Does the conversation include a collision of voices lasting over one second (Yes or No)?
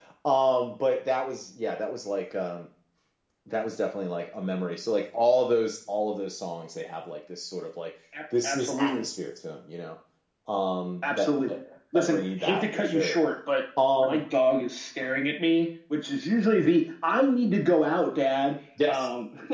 Yes